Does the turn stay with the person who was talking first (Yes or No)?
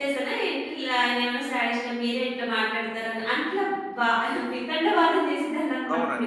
No